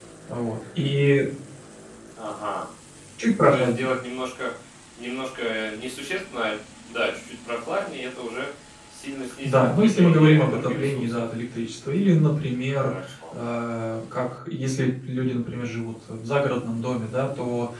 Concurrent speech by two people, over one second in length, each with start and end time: 9.4-11.2

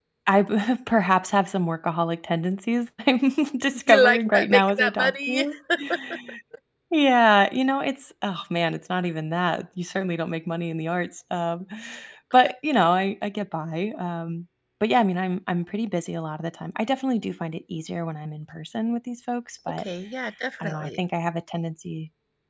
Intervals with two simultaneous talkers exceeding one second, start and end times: 3.9-5.5

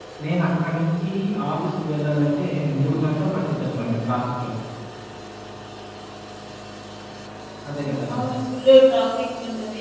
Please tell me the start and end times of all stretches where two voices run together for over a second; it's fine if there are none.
none

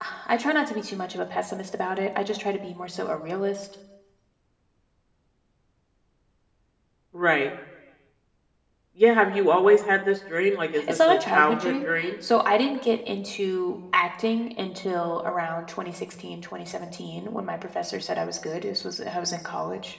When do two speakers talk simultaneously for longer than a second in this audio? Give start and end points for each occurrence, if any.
10.9-12.1

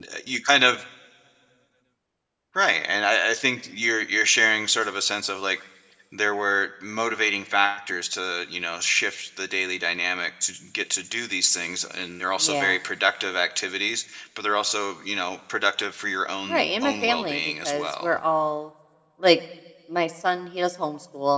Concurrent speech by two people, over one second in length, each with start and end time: 16.5-18.1

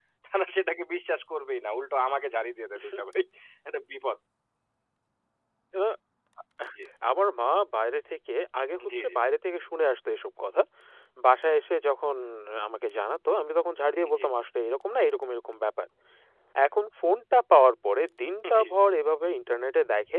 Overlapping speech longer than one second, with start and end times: none

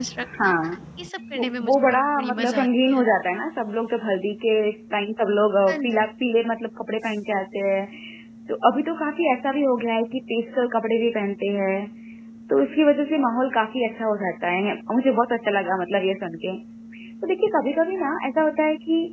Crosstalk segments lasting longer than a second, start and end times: 1.4-3.0

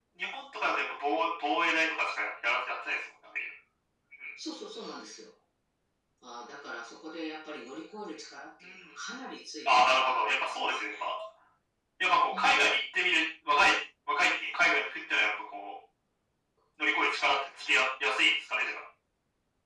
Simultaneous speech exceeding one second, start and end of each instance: 9.8-11.1

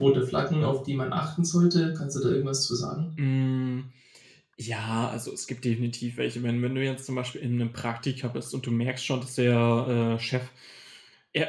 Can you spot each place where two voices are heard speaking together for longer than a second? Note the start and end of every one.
none

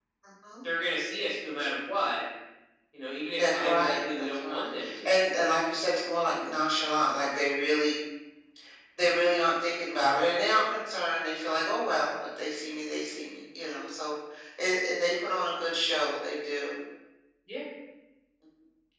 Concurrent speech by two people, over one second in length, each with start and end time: 3.4-5.1

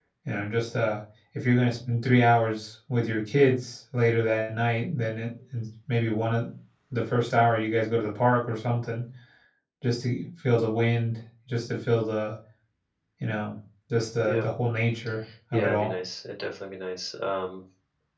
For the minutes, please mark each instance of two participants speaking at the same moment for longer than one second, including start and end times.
none

